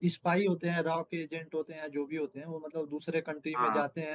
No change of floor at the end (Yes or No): Yes